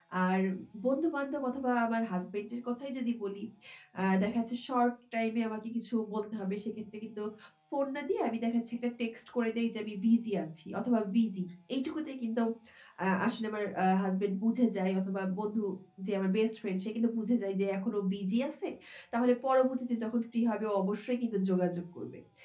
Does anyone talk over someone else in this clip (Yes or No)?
No